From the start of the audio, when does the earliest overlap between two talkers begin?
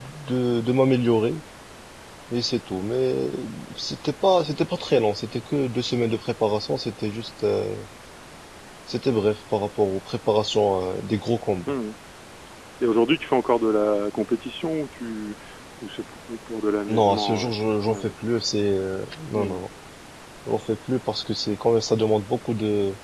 17 s

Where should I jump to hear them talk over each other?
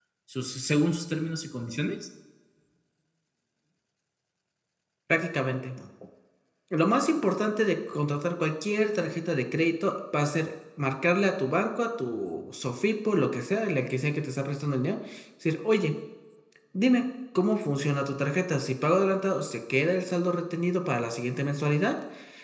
none

